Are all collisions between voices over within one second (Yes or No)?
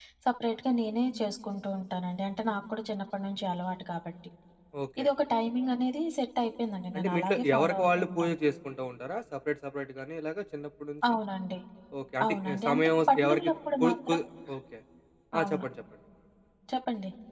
No